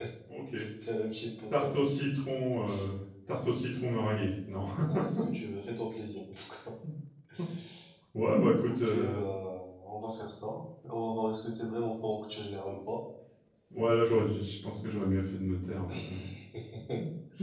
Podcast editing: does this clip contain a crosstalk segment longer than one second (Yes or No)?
No